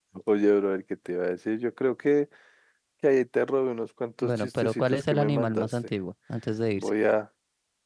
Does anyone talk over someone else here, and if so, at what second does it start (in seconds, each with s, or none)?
4.2 s